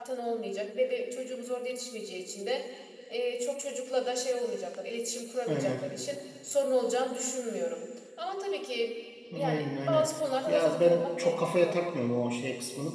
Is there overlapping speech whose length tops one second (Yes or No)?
Yes